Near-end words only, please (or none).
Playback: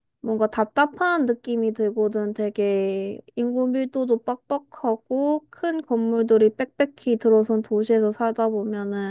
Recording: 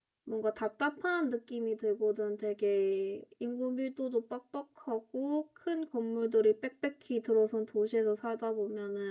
none